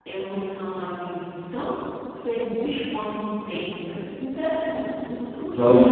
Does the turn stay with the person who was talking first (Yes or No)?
No